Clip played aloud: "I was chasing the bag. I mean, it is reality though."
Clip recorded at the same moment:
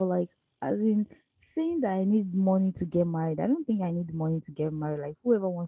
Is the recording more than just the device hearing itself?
Yes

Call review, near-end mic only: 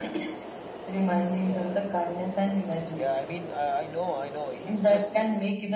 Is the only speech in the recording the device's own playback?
Yes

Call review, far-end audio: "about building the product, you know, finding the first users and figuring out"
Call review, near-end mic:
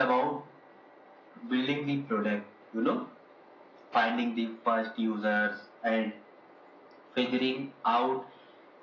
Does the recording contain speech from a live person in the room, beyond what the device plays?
No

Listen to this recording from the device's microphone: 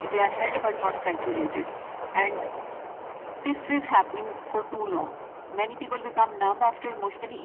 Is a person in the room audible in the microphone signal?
No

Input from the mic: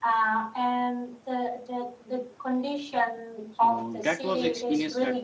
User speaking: Yes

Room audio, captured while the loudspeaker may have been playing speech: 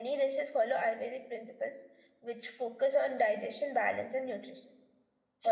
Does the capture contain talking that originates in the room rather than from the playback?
Yes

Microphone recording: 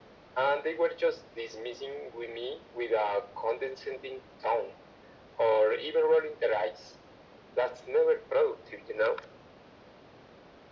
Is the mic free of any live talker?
Yes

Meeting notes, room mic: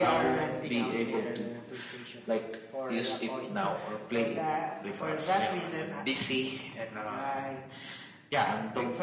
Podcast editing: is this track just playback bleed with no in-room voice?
Yes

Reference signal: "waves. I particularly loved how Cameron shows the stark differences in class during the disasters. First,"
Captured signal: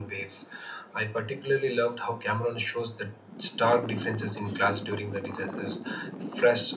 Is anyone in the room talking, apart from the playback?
No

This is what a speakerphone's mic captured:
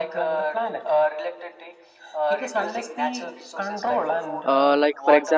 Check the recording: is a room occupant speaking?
Yes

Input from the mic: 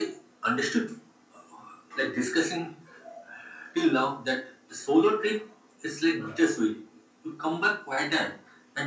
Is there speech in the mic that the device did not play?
No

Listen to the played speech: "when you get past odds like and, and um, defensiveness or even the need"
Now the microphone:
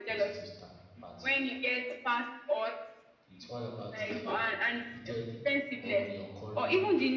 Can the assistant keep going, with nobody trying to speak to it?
No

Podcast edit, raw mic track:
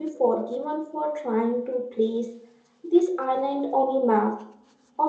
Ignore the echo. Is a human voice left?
Yes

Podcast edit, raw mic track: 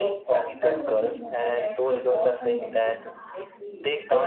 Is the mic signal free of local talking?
No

